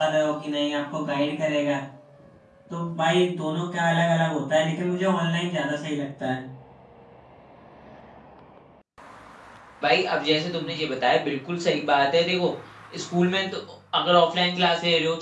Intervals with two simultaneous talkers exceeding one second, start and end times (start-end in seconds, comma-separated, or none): none